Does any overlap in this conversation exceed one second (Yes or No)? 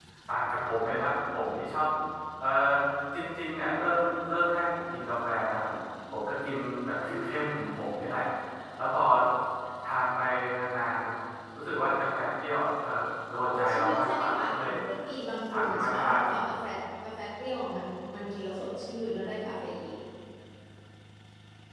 Yes